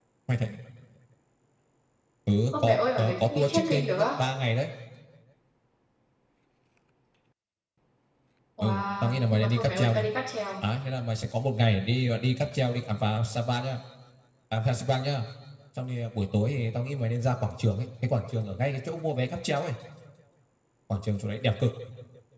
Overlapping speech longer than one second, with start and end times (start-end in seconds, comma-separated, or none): 2.6-4.0, 8.6-10.1